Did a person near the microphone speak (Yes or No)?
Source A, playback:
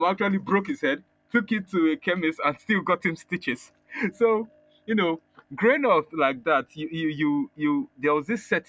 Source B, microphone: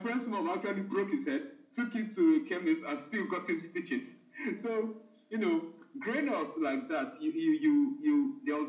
No